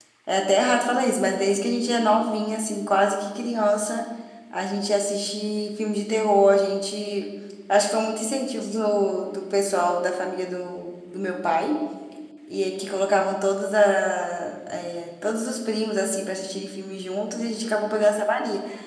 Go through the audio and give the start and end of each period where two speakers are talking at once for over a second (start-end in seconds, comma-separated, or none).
none